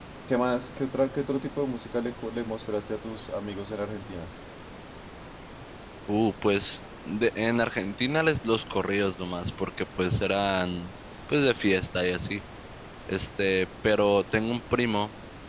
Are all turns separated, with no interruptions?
Yes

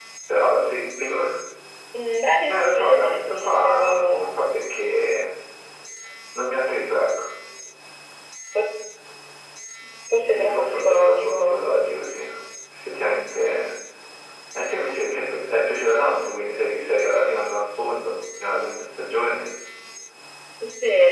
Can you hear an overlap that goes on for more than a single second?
Yes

